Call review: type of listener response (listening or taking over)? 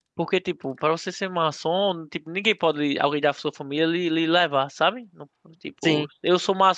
listening